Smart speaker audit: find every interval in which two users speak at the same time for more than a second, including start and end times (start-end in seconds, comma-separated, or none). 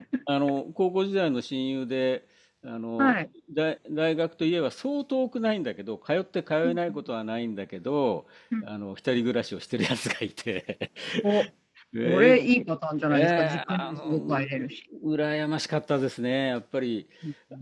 13.1-14.5